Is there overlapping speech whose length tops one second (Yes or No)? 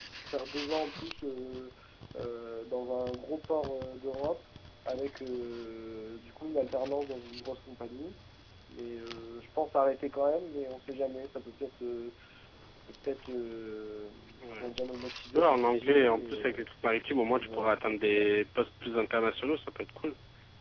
Yes